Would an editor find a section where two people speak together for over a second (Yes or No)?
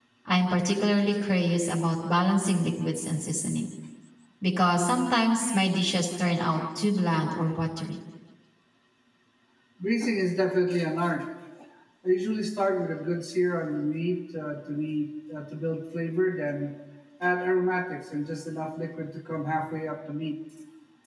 No